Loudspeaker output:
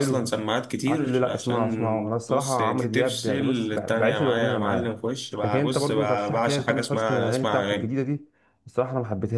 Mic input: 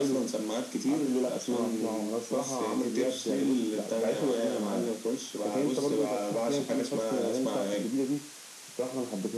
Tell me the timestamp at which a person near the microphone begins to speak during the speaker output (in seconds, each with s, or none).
none